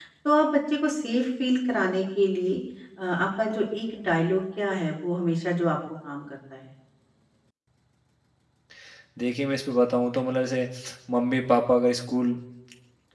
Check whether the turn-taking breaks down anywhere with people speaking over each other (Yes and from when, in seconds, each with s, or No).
No